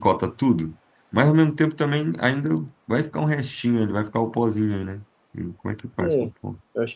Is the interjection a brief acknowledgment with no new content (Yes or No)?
No